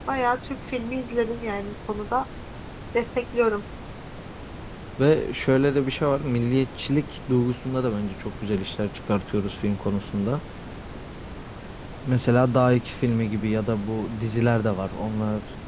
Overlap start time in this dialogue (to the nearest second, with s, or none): none